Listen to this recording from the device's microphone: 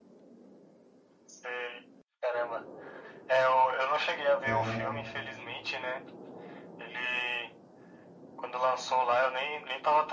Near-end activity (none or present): present